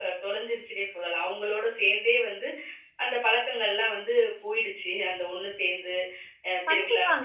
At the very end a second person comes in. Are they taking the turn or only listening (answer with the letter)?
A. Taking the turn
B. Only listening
A